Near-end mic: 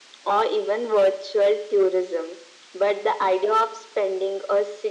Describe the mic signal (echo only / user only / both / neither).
echo only